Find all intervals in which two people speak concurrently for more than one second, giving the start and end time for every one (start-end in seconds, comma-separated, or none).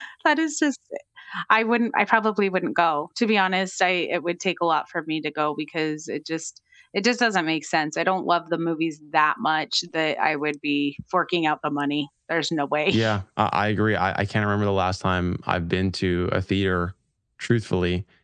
none